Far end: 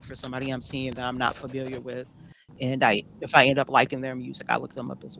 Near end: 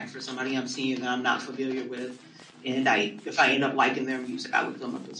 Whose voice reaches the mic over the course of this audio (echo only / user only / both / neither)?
echo only